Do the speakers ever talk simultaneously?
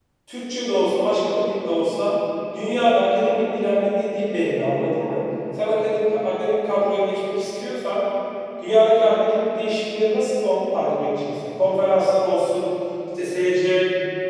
No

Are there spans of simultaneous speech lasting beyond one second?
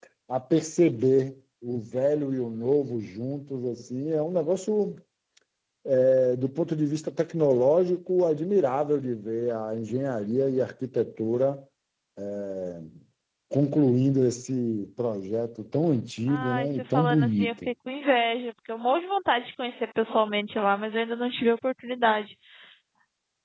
Yes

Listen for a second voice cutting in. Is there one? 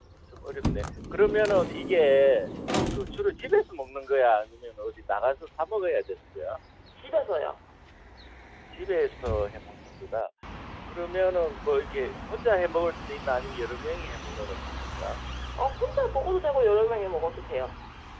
No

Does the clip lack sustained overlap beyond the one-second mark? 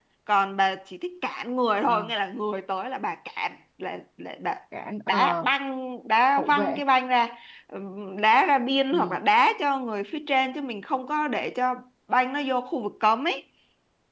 Yes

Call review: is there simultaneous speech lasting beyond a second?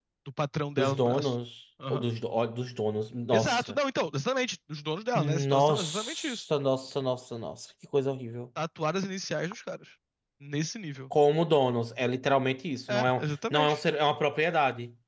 Yes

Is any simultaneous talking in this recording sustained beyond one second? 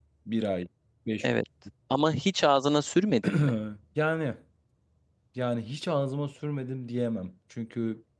No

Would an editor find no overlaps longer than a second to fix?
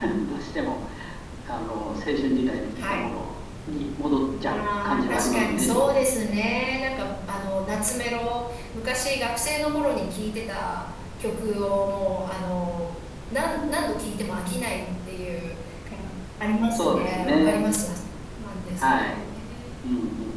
No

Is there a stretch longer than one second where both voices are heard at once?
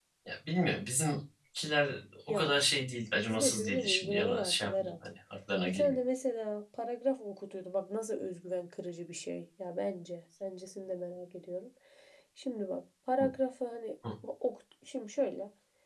Yes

